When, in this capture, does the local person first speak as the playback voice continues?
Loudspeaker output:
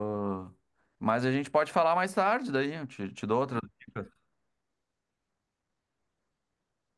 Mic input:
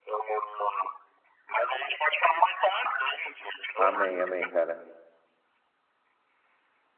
3.8 s

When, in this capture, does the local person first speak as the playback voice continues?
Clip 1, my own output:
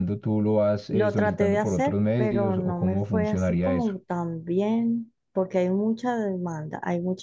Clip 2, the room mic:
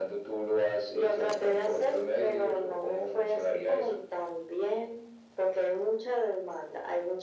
none

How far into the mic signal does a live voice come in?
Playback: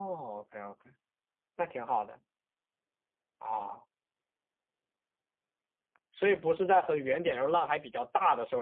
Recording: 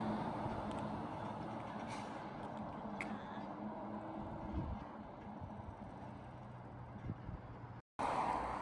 none

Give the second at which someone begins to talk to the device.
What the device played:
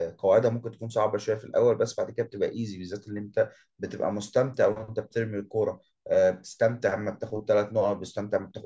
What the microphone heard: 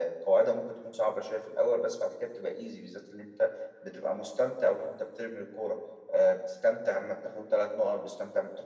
none

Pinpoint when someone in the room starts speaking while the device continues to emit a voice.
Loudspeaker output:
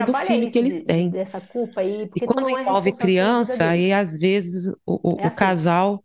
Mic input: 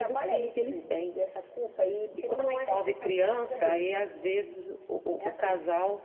none

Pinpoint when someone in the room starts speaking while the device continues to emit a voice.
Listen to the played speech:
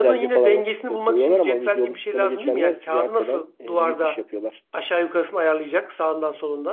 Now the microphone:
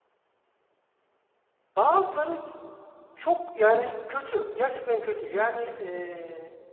1.8 s

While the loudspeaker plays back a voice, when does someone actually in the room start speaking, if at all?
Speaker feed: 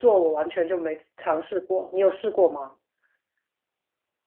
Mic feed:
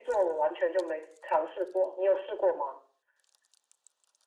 none

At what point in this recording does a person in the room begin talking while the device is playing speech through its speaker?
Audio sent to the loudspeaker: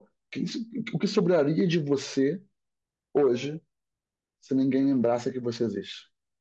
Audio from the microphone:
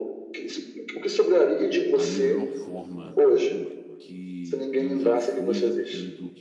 1.9 s

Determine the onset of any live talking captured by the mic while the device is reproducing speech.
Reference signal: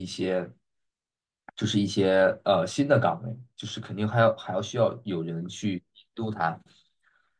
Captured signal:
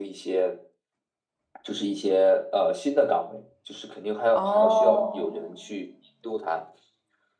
4.3 s

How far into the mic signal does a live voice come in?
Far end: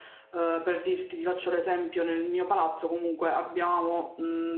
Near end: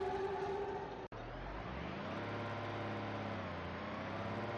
none

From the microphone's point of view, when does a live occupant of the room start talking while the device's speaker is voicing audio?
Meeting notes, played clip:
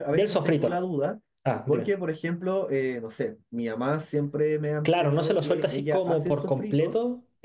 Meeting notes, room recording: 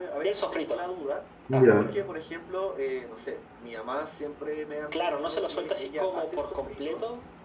1.5 s

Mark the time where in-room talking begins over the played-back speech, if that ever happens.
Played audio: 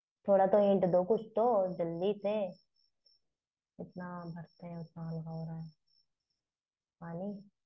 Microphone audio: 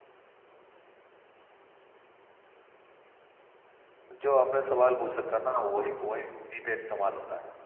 4.1 s

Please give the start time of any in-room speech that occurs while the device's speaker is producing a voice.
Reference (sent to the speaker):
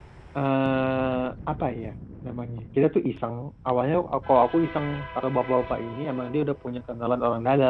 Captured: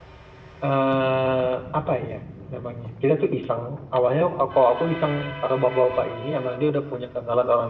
none

